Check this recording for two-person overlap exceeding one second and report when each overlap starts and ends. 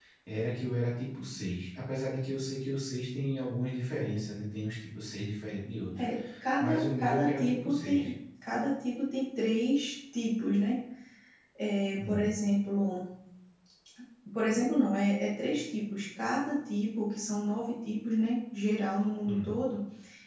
6.6-8.1

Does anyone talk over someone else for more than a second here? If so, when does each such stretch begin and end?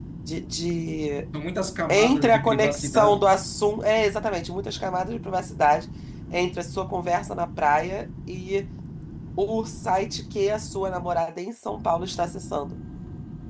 1.9-3.2

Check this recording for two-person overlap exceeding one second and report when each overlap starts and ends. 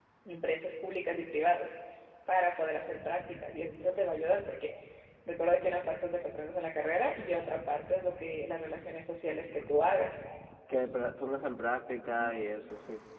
none

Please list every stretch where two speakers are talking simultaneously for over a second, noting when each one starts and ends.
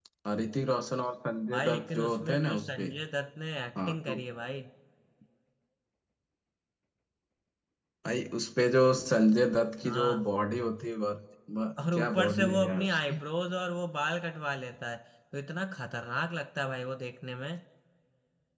1.5-2.8, 11.9-13.2

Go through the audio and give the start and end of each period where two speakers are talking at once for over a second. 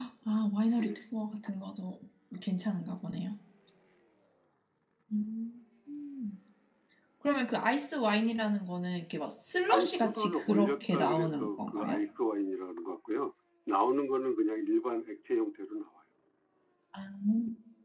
9.7-12.0

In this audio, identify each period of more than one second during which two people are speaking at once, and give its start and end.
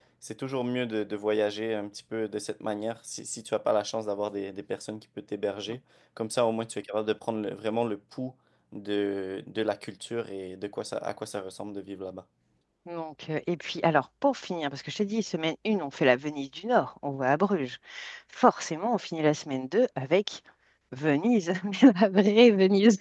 none

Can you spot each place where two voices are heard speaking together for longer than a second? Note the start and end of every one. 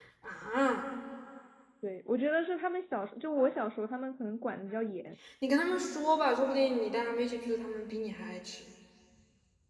none

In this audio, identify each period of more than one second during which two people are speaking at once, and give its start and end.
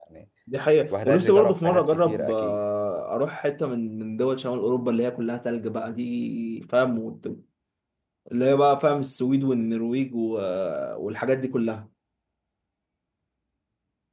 0.9-2.6

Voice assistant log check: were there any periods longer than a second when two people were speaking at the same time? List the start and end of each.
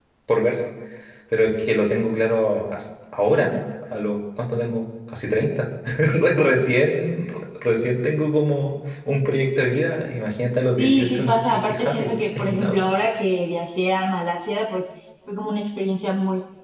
10.8-12.8

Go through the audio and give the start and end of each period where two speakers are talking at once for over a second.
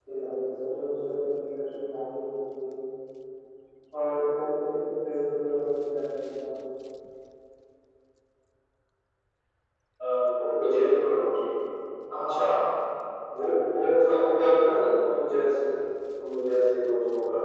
none

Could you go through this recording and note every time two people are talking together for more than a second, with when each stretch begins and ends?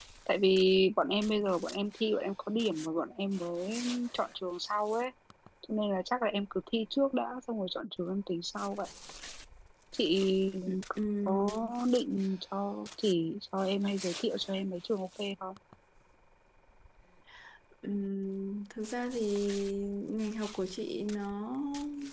none

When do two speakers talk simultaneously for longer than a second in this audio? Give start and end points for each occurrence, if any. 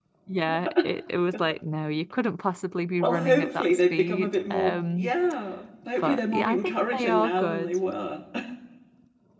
3.0-5.1, 6.0-7.7

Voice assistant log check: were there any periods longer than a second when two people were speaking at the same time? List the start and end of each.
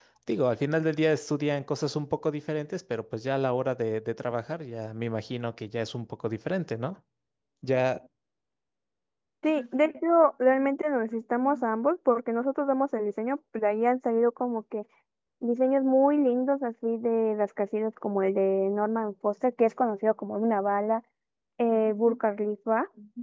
none

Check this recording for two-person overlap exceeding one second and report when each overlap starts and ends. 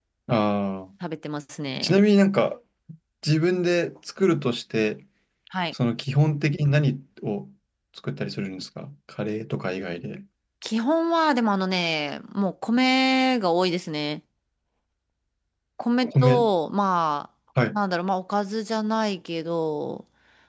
none

